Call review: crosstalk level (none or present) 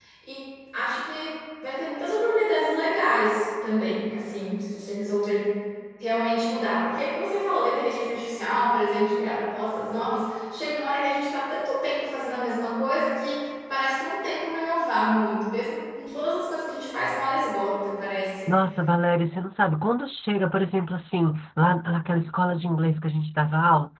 none